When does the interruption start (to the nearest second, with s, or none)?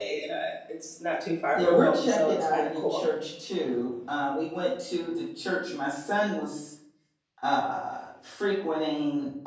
2 s